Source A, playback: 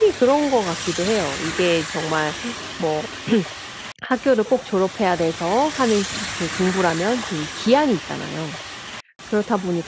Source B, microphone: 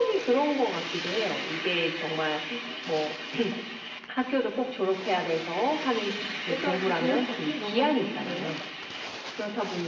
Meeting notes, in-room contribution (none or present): present